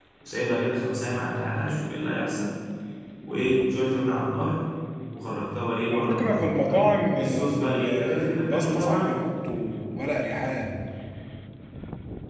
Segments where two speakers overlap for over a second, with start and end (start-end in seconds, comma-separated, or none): 5.9-9.1